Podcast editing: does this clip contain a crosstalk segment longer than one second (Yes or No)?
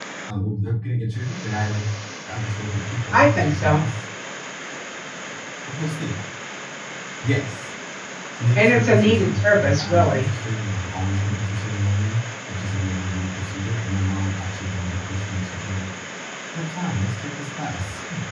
Yes